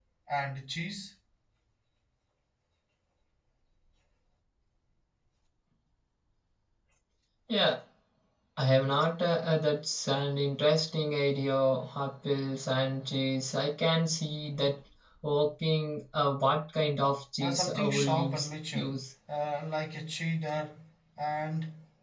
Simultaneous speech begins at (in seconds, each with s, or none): 17.4 s